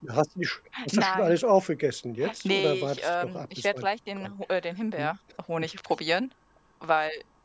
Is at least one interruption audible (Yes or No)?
Yes